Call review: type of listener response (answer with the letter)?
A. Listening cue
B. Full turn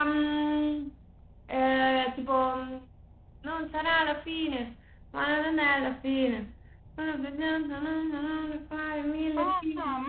B